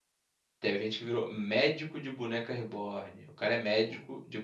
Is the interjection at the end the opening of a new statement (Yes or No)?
No